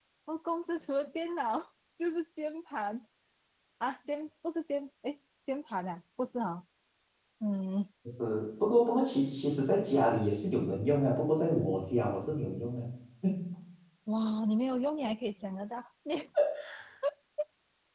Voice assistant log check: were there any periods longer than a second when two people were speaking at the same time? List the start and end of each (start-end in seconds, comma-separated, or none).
none